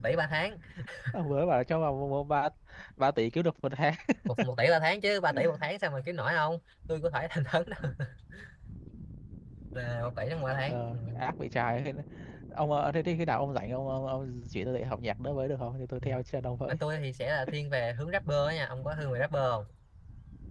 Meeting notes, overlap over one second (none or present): none